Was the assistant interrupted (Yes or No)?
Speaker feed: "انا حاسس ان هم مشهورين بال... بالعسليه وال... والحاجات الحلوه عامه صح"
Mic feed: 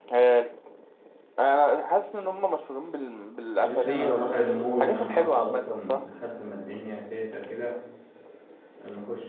Yes